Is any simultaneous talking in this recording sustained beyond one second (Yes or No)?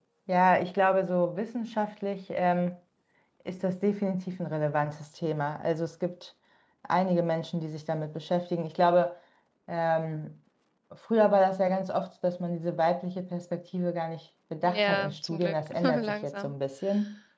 Yes